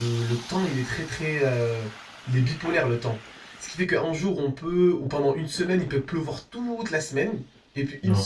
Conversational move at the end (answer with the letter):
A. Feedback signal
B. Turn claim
A